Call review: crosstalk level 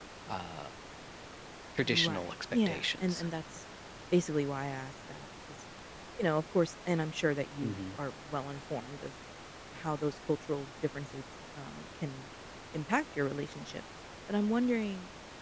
present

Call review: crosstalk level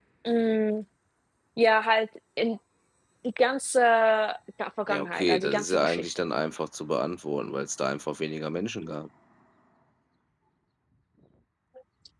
present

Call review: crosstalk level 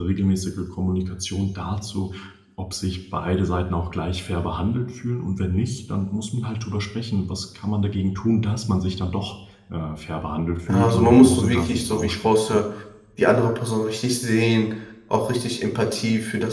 present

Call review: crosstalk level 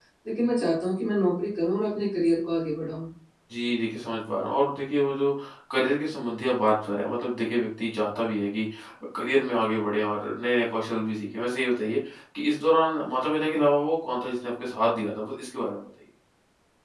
none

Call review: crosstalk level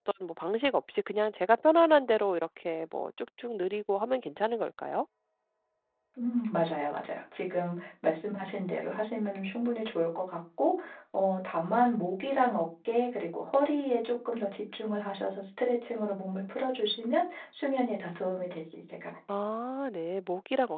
none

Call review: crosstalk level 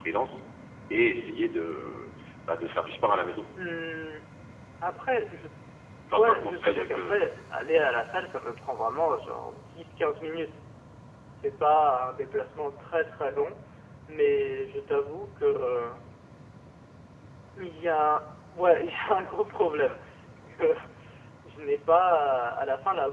present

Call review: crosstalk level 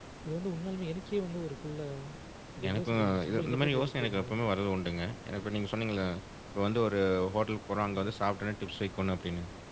present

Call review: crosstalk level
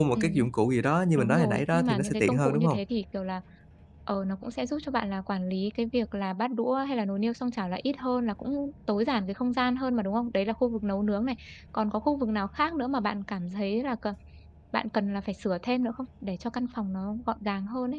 present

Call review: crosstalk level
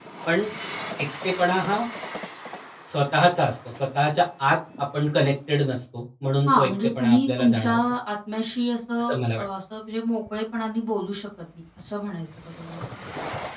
present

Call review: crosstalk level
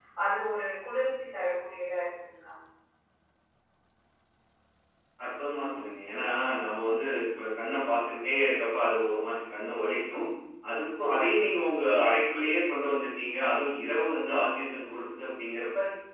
none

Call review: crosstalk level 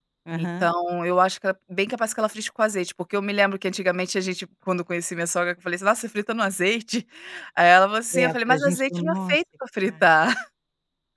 present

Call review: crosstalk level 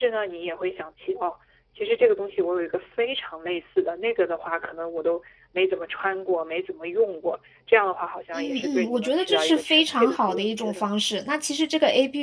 present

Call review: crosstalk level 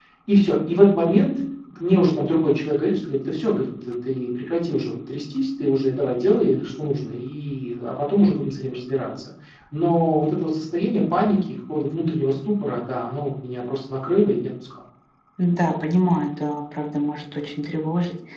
none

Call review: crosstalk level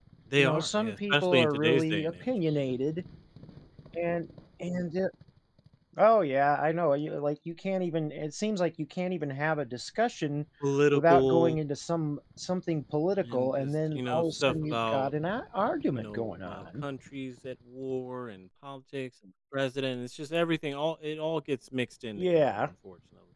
present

